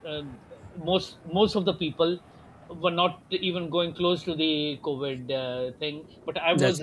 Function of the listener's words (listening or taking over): listening